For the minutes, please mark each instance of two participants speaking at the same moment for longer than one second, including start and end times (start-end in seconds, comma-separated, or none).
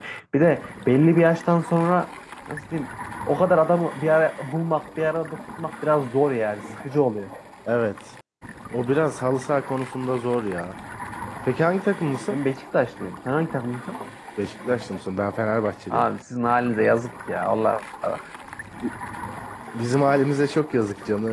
none